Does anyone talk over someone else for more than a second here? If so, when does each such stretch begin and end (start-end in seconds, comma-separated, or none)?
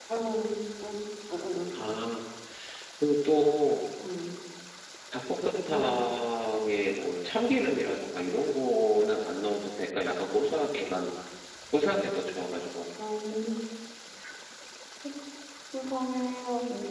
none